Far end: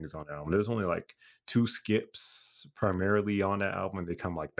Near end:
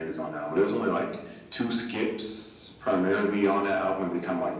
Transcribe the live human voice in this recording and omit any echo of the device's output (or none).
none